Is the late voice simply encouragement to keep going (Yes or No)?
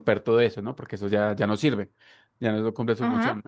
Yes